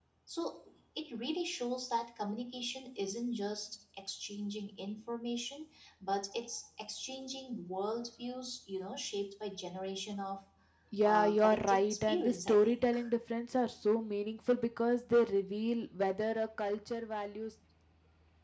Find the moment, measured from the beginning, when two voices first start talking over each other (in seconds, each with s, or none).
11.0 s